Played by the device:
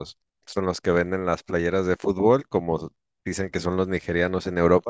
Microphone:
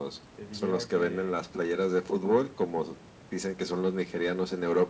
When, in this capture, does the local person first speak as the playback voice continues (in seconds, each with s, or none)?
0.3 s